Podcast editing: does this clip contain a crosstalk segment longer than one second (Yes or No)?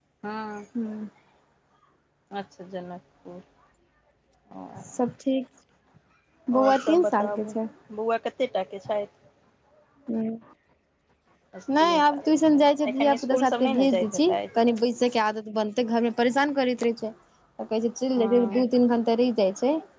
Yes